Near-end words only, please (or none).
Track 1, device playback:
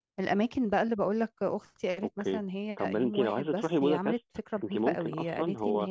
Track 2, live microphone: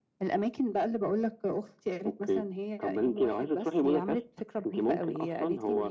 none